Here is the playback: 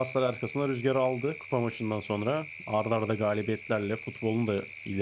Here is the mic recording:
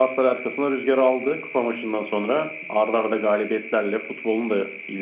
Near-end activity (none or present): none